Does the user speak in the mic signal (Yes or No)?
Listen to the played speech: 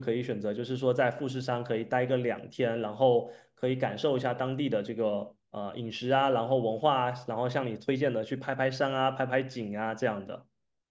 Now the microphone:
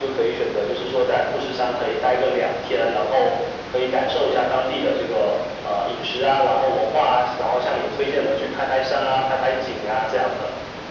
No